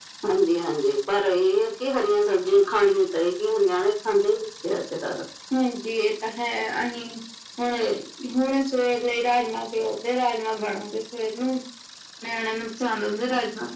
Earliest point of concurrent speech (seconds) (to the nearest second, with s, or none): none